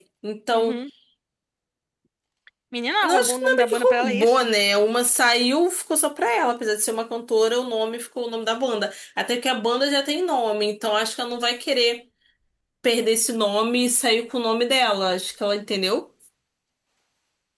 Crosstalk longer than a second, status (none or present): present